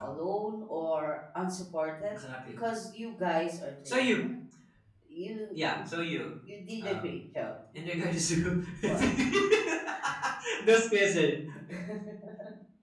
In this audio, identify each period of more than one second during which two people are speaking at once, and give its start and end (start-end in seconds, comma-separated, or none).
none